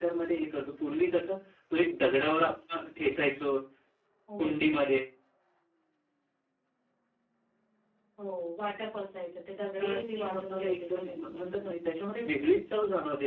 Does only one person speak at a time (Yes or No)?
No